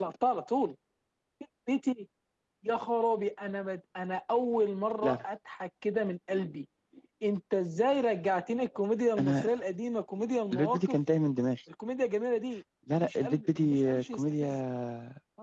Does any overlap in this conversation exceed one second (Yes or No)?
Yes